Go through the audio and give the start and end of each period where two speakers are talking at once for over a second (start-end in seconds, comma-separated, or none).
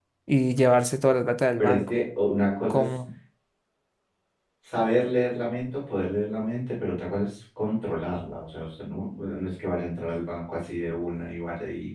none